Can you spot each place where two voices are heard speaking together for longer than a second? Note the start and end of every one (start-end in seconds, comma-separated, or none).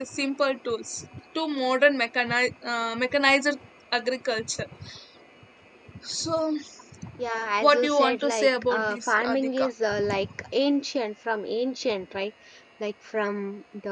7.6-9.7